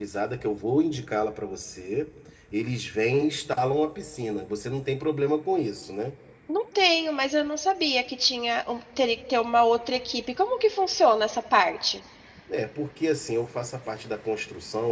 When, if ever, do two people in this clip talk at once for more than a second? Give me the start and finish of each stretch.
none

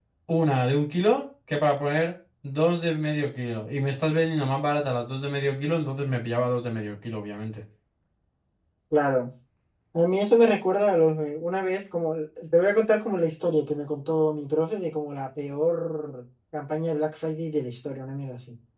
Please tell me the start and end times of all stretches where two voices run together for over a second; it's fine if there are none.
none

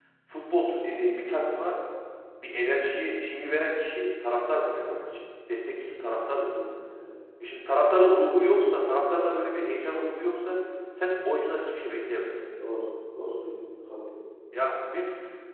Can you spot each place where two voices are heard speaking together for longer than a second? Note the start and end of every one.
none

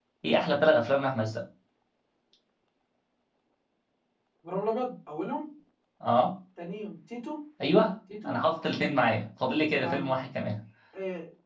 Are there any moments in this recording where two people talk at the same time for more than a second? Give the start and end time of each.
none

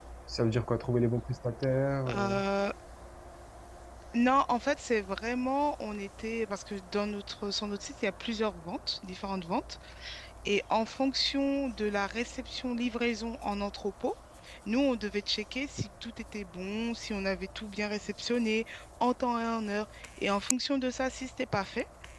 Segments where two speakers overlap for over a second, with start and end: none

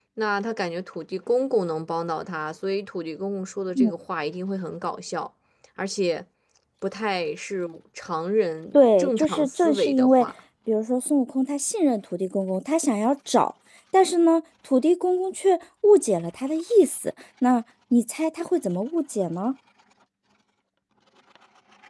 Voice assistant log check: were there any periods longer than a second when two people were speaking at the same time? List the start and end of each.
8.7-10.2

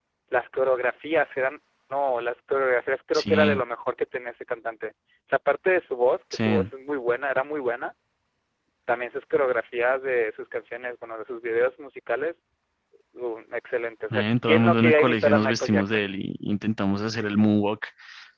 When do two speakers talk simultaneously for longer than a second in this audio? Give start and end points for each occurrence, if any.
14.1-16.1

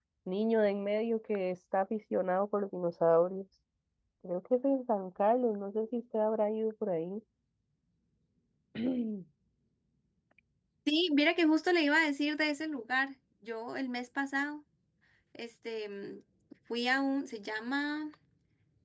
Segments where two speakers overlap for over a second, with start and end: none

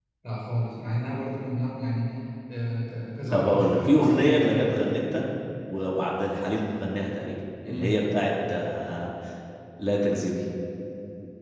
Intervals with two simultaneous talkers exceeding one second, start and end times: 3.3-4.9

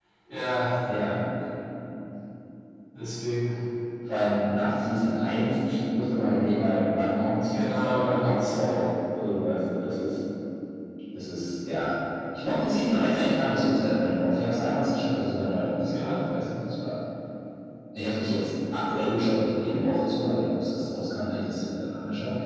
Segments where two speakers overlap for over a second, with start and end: 7.5-8.8

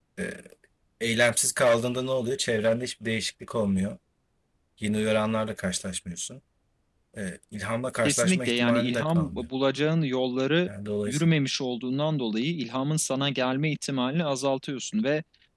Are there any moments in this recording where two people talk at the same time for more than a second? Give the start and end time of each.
8.1-9.5

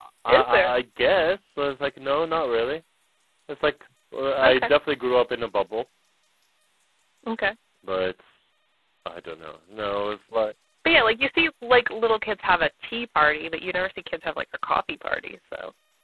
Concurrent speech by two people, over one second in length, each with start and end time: none

